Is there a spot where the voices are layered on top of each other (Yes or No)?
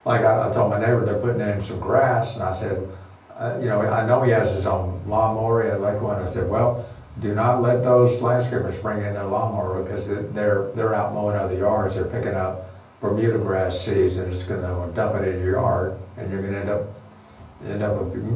No